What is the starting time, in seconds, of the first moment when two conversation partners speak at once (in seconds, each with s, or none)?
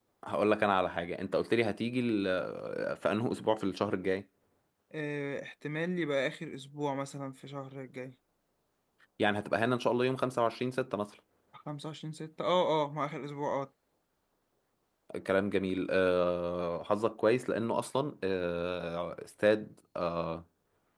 none